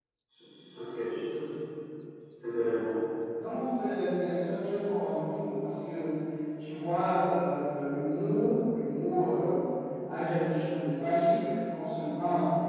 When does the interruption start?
none

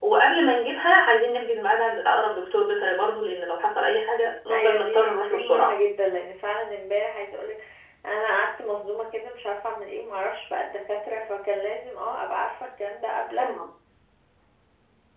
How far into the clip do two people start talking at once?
4.5 s

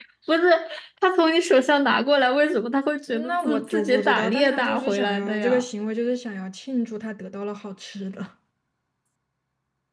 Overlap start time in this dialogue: 3.1 s

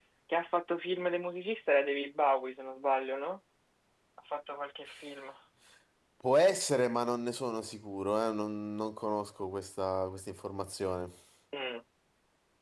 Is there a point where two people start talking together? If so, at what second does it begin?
none

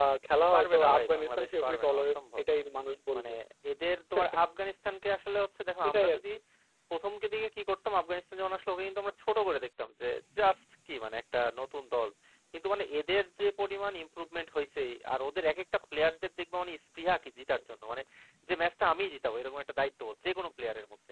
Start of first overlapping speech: 0.5 s

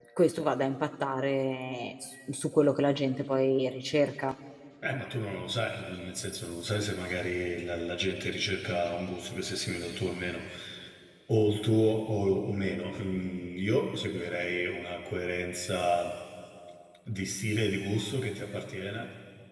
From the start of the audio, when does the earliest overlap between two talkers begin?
none

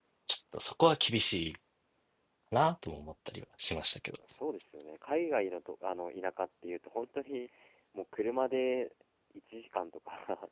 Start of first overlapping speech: none

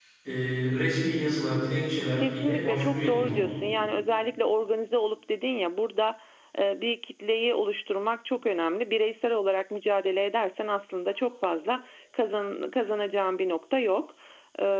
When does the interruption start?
2.2 s

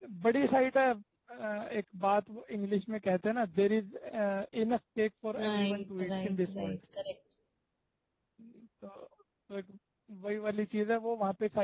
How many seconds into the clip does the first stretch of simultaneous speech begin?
5.4 s

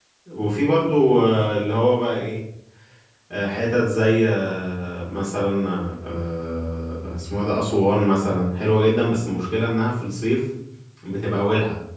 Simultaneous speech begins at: none

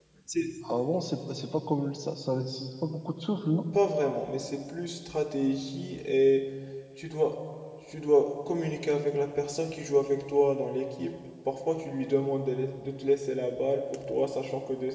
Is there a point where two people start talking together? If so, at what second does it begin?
none

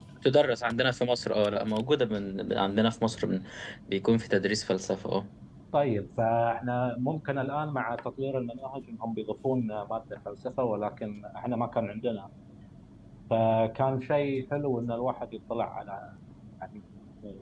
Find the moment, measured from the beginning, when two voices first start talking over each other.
none

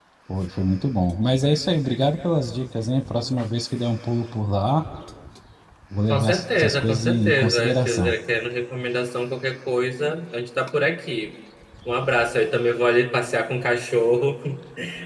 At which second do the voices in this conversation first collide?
6.1 s

